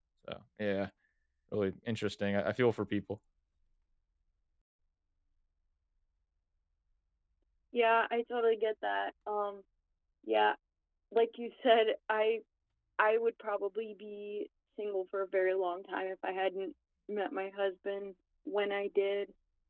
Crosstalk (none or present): none